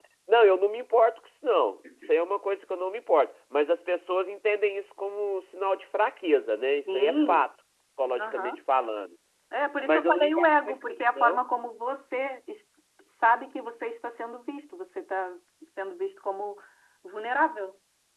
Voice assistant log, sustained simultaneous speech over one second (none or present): present